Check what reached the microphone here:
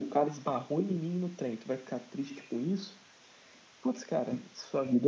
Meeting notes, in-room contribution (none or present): none